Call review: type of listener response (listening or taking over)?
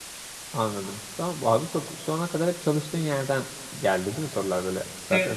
taking over